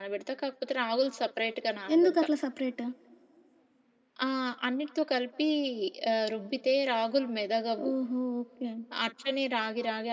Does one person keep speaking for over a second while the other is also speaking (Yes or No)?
No